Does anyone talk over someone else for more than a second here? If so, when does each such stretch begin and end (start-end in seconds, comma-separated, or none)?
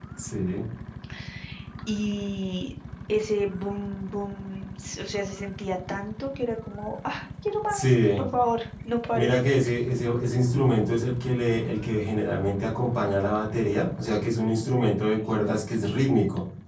none